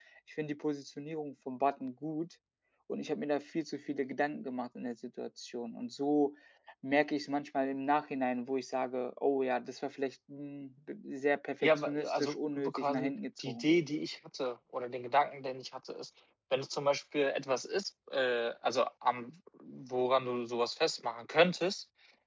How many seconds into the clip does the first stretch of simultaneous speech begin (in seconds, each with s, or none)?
11.6 s